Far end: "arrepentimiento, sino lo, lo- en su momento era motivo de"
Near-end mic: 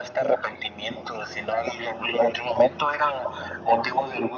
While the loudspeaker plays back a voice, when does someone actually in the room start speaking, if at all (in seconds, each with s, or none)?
none